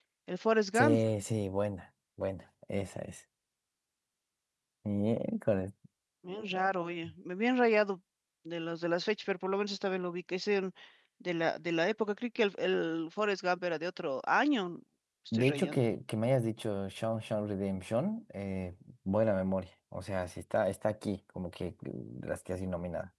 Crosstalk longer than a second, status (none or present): none